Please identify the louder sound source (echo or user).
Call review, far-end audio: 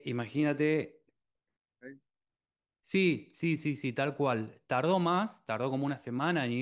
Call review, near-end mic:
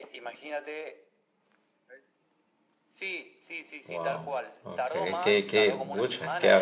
user